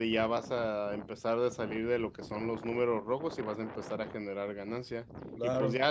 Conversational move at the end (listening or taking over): listening